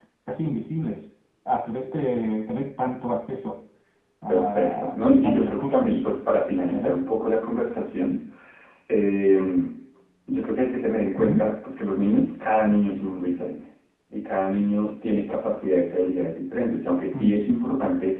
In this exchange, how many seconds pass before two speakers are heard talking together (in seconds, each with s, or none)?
4.3 s